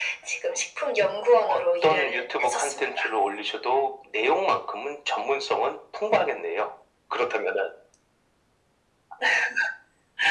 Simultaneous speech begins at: 1.4 s

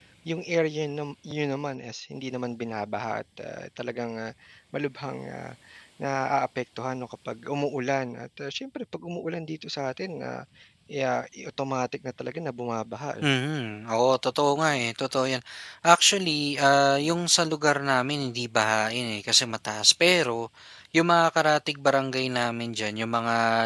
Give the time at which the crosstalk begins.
none

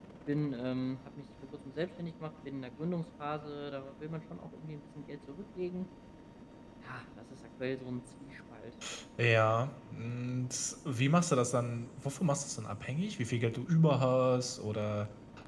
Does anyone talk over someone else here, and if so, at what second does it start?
none

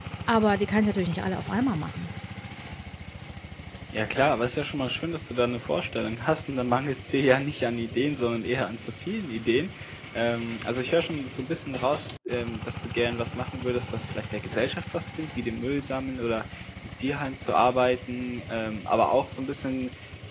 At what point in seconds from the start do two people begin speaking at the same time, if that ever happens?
none

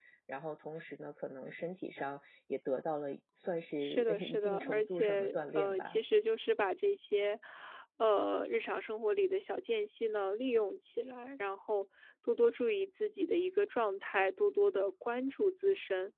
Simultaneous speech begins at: 3.8 s

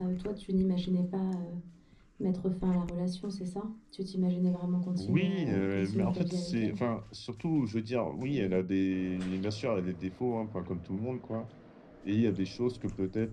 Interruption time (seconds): 5.0 s

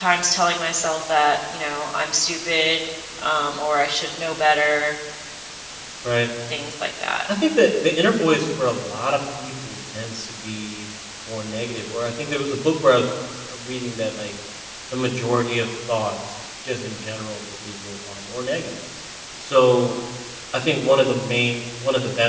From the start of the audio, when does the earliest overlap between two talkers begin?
none

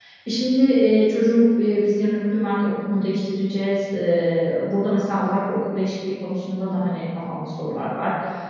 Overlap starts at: none

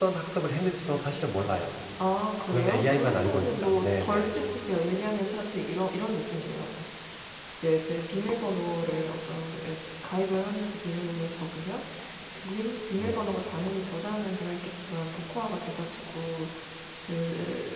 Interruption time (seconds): 2.5 s

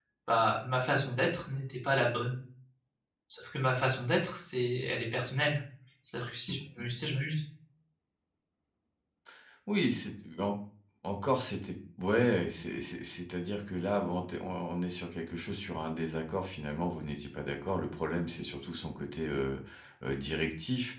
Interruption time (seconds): none

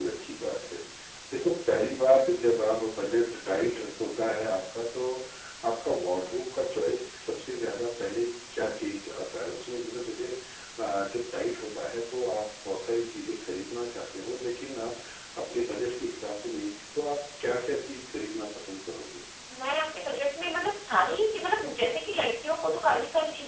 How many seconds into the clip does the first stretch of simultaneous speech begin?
none

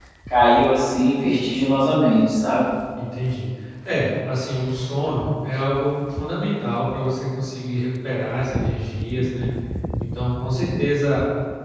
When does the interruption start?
none

